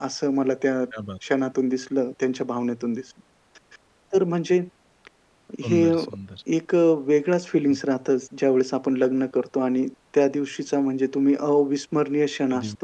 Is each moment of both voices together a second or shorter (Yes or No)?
Yes